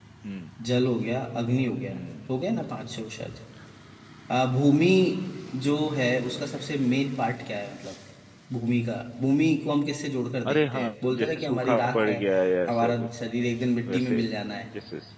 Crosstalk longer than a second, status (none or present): present